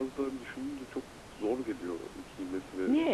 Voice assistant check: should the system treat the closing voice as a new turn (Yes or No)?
Yes